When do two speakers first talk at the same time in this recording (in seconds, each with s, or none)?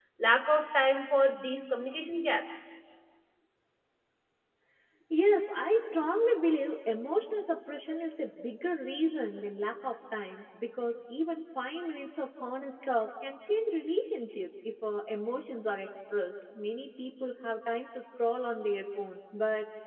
none